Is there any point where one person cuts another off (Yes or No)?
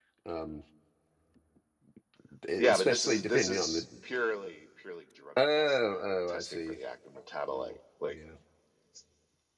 Yes